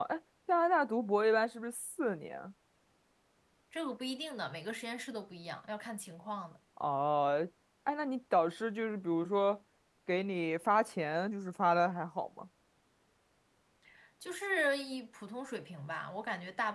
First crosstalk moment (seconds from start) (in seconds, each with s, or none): none